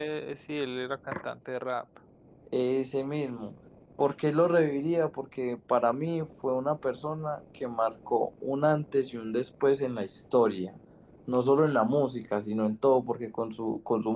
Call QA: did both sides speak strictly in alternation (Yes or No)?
Yes